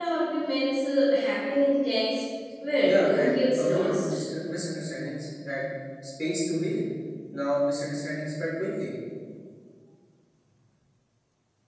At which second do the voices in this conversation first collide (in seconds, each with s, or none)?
2.8 s